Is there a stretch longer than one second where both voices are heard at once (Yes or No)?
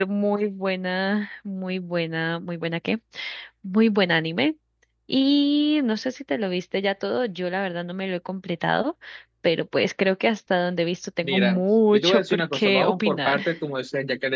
Yes